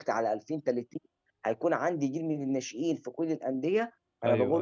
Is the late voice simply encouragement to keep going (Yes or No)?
Yes